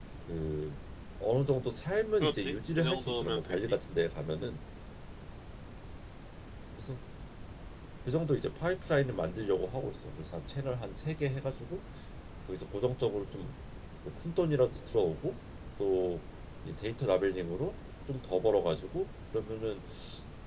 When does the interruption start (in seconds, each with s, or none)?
2.2 s